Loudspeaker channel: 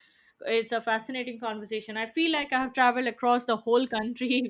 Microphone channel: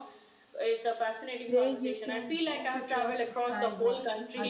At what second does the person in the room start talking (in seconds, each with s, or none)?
1.4 s